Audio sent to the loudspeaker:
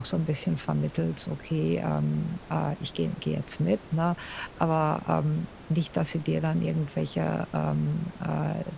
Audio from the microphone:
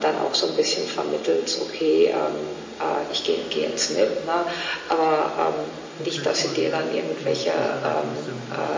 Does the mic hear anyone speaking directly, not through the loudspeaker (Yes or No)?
Yes